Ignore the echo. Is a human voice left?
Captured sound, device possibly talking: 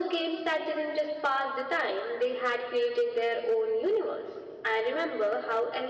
No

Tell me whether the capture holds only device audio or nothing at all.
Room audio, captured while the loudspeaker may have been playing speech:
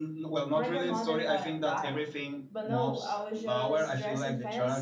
No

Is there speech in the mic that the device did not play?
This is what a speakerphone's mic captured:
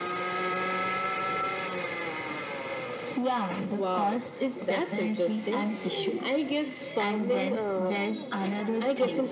Yes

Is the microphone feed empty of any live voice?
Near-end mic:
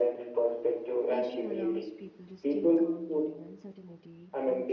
No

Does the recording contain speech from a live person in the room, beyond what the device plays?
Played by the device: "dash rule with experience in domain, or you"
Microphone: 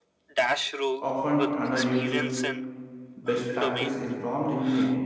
Yes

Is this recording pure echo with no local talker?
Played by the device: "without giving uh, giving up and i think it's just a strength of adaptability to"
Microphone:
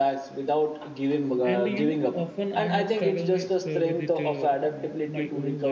No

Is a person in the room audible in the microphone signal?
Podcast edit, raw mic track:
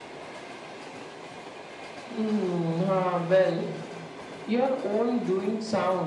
No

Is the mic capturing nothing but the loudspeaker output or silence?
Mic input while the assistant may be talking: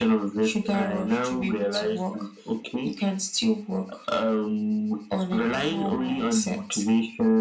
Yes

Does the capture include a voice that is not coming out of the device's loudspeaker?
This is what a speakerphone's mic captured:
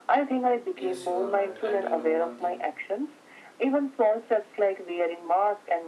Yes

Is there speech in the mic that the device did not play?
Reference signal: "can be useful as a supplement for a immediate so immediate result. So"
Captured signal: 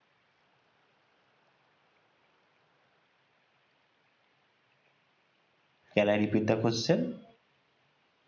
Yes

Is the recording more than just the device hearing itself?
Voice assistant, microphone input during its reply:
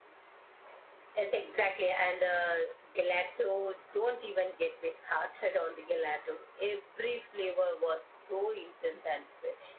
No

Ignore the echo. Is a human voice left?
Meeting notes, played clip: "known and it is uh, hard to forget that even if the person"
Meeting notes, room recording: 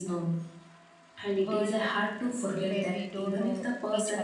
Yes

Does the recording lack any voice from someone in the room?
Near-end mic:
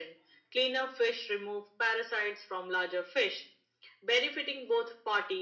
Yes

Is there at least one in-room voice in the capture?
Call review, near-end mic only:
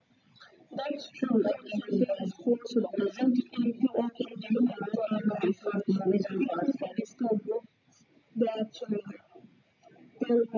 No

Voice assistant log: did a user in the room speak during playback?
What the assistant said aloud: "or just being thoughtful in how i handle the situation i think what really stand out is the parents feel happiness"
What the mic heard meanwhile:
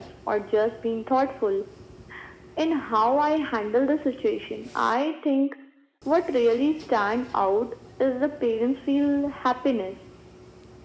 No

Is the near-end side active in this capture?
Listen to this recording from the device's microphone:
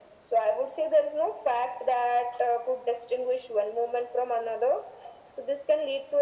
No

